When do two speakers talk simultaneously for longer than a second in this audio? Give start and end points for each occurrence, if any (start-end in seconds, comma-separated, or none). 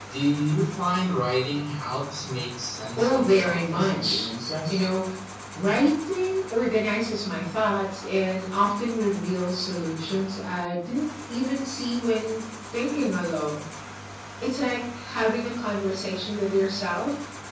3.0-4.3